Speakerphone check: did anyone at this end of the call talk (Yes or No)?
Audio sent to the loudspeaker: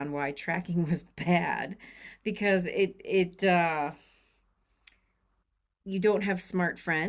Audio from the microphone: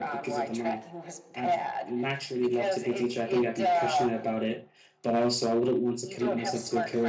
Yes